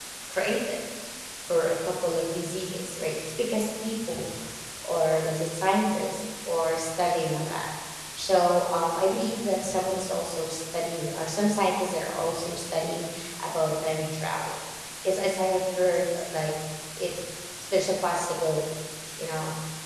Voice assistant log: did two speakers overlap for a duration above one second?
No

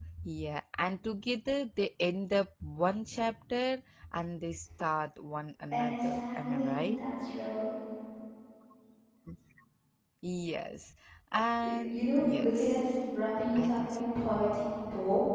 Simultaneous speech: Yes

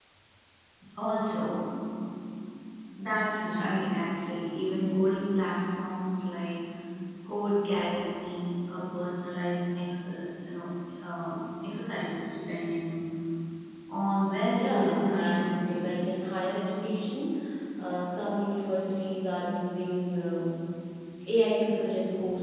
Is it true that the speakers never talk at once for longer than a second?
No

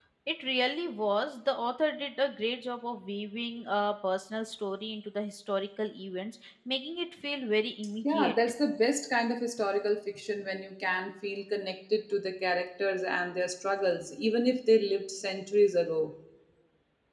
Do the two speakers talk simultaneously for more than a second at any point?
No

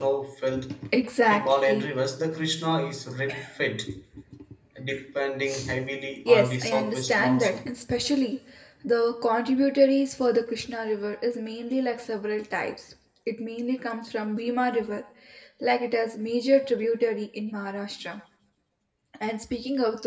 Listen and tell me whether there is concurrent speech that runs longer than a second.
Yes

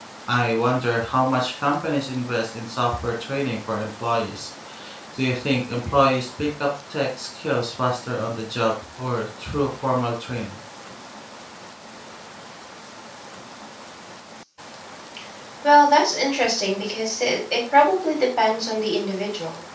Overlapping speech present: No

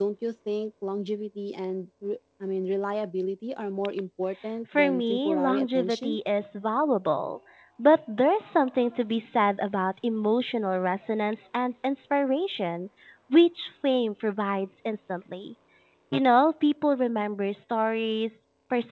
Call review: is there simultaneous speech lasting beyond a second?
Yes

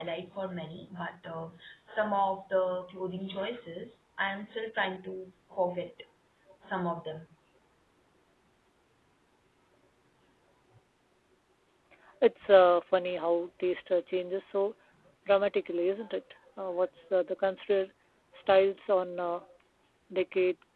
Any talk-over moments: No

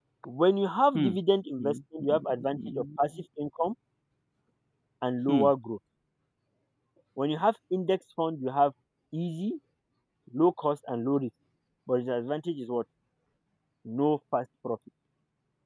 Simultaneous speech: Yes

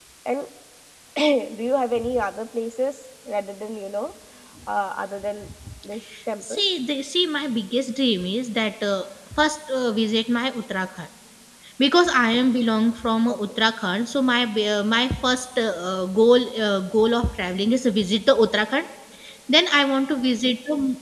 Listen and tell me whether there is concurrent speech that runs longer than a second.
No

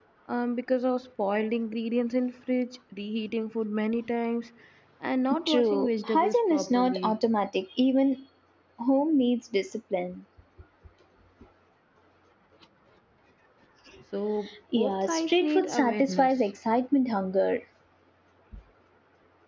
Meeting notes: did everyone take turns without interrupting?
No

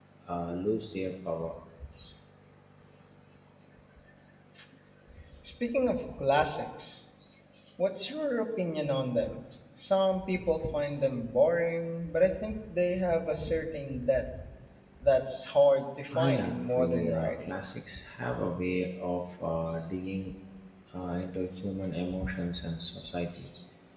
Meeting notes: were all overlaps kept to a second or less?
No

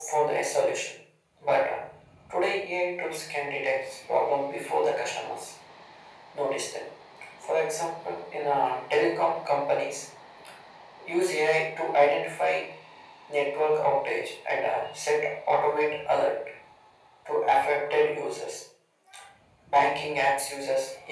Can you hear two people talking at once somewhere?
No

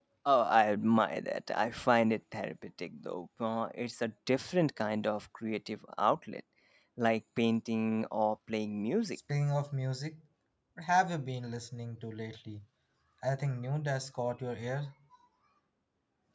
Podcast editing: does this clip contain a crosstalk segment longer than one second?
No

